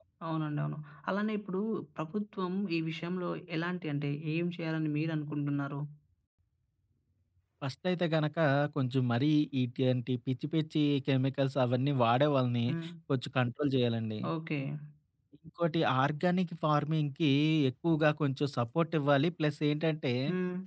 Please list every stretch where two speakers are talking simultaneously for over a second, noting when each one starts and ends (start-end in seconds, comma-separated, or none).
none